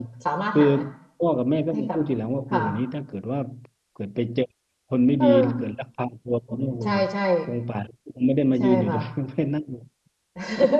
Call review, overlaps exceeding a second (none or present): none